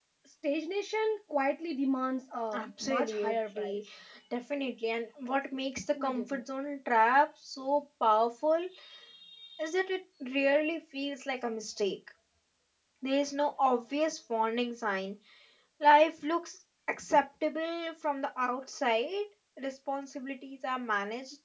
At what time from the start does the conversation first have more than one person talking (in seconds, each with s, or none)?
2.5 s